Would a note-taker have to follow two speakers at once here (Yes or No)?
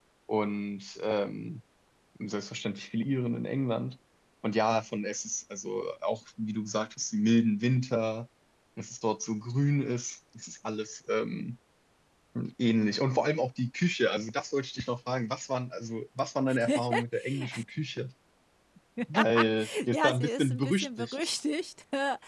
Yes